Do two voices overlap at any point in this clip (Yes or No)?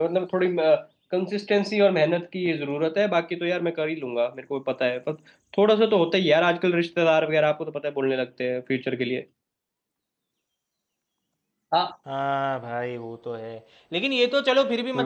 No